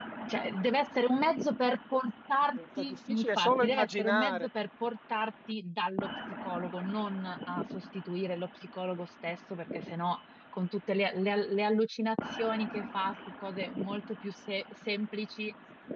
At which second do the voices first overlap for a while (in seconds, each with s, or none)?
2.6 s